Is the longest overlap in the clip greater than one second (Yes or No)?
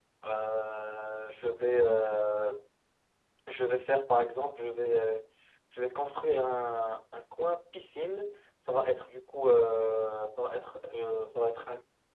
No